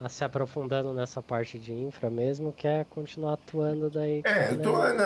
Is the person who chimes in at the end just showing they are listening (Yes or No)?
No